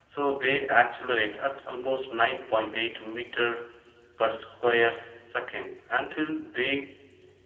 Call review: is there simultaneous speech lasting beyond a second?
No

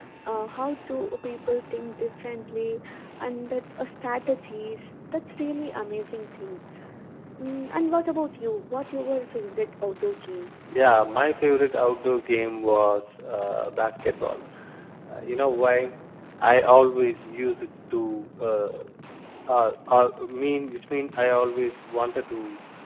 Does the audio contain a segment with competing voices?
No

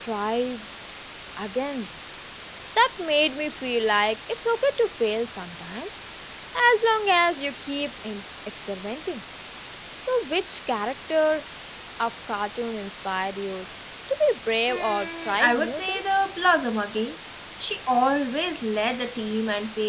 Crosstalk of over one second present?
Yes, from 14.7 s

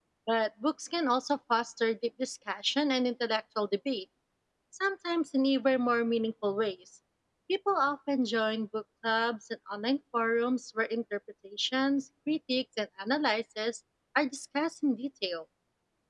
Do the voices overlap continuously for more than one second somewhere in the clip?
No

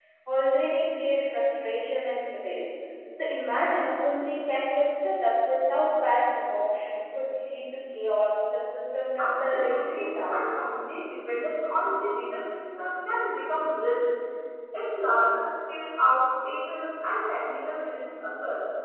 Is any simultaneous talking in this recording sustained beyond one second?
Yes, from 9.2 s

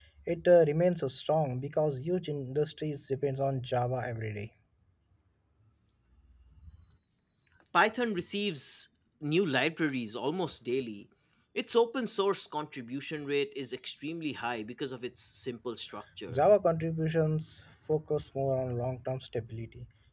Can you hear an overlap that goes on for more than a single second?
No

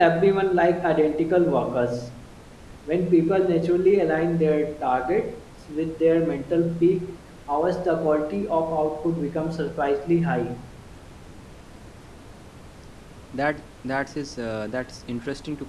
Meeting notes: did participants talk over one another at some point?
No

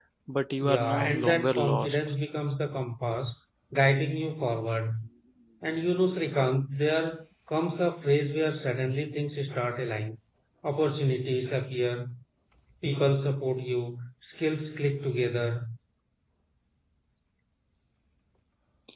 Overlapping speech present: Yes, from 0.6 s

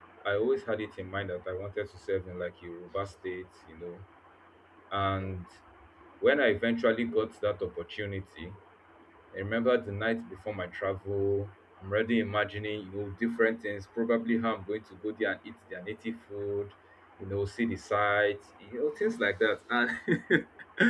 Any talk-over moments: No

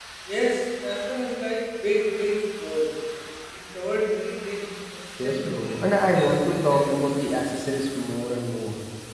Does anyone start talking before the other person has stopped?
Yes, from 5.2 s

